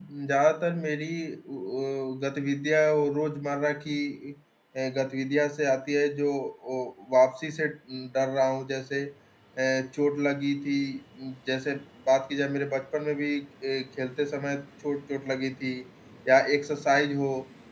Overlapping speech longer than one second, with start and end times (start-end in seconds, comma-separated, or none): none